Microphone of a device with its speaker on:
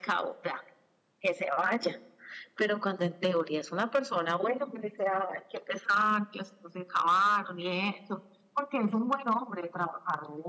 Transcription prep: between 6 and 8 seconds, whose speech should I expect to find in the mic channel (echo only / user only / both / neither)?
echo only